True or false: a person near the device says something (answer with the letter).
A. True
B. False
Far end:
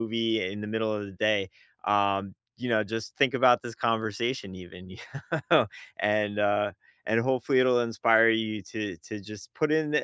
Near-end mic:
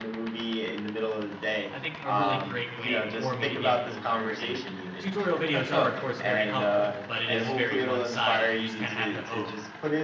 A